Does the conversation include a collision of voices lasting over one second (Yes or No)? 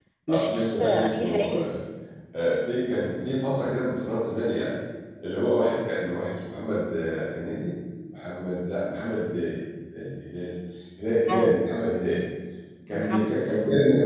Yes